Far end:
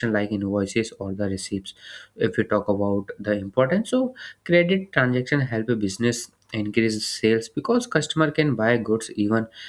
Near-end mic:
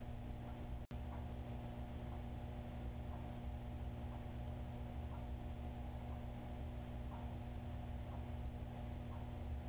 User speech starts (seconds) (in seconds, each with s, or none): none